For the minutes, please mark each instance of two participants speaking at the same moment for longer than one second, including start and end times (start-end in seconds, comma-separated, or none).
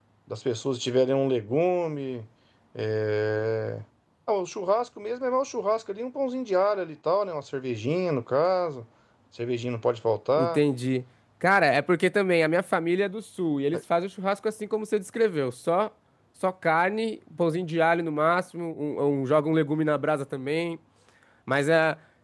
none